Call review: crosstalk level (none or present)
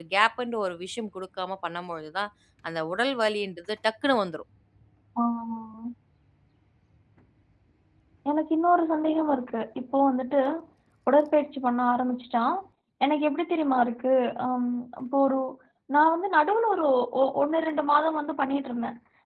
none